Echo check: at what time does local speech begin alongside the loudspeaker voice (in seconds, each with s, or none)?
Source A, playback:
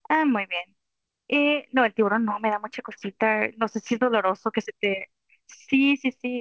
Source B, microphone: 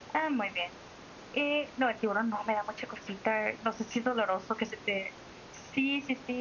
none